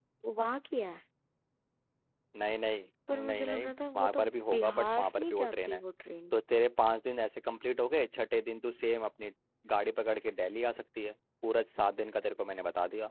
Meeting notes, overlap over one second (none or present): present